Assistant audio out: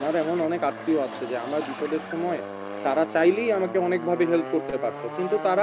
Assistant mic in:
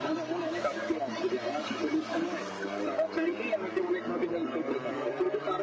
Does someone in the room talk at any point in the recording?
No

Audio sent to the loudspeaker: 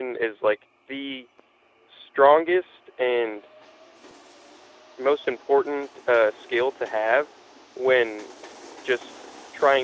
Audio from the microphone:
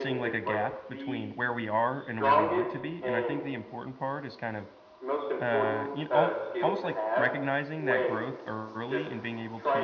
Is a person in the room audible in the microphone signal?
Yes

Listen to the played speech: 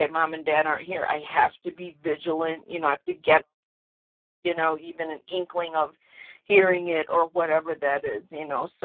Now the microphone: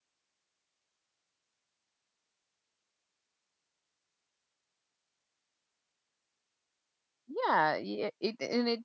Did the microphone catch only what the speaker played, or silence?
No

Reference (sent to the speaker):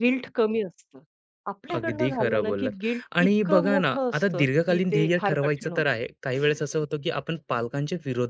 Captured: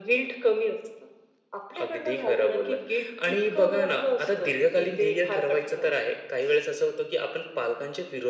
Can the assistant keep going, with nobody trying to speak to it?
Yes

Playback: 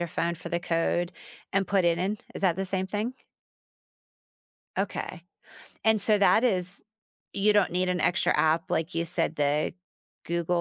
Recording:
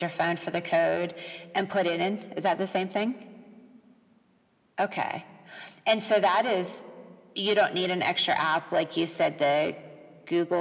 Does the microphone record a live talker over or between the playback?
No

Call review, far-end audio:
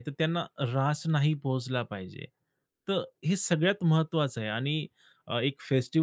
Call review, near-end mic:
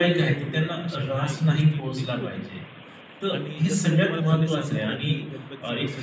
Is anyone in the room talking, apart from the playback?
Yes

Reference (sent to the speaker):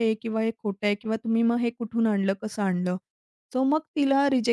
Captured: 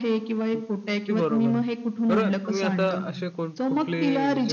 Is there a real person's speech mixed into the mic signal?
Yes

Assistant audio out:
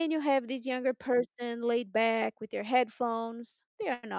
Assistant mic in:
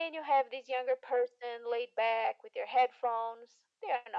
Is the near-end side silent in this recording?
Yes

